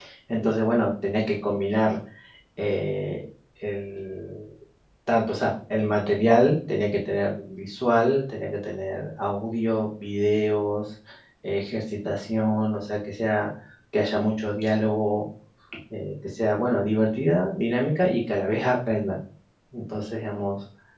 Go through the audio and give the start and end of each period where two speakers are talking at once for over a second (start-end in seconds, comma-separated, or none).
none